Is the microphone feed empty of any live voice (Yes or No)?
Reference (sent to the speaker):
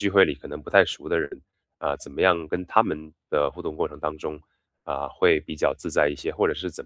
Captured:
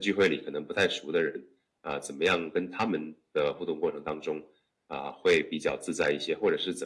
Yes